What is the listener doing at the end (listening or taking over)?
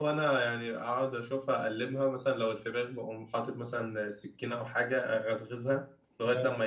listening